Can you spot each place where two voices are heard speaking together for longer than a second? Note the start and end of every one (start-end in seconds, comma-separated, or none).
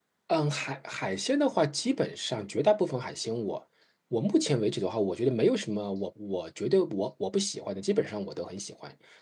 none